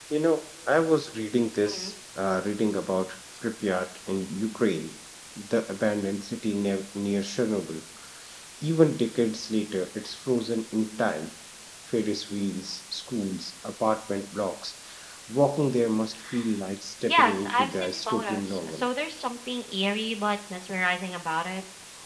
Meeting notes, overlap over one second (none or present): present